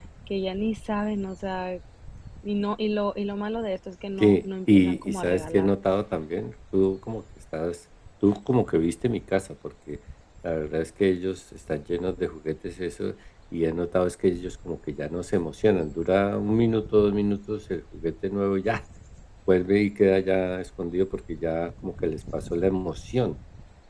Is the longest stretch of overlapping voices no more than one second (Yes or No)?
No